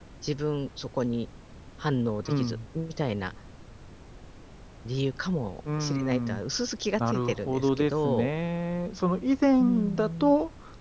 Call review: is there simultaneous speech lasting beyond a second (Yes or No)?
Yes